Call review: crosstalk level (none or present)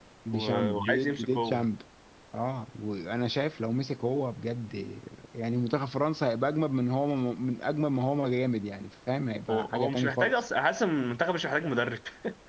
present